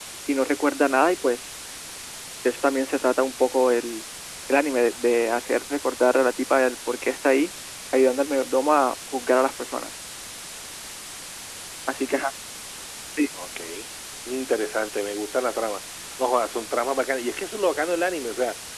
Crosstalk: none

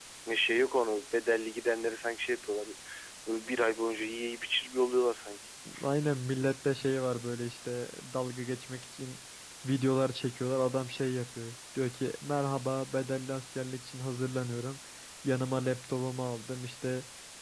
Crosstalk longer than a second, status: none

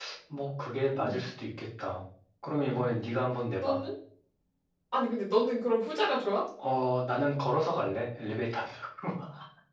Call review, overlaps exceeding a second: none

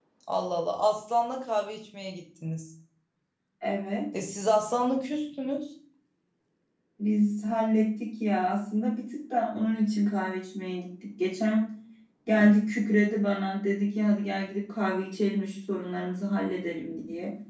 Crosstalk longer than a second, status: none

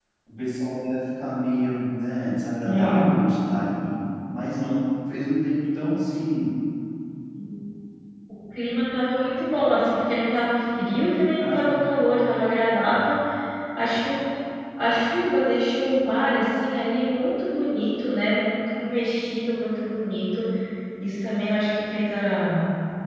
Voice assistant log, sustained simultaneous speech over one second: none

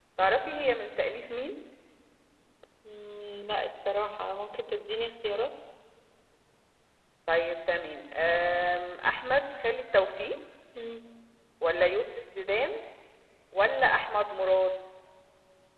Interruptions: none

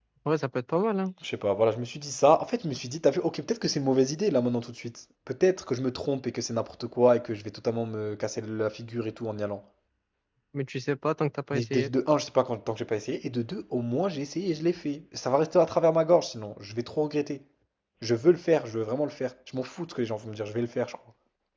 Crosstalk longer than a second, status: none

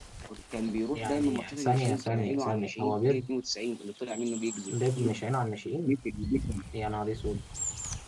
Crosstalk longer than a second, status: present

